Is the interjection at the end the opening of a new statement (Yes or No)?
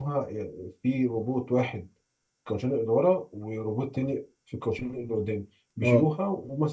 No